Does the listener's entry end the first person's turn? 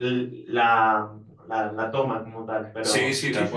Yes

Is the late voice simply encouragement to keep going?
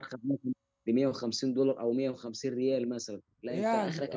Yes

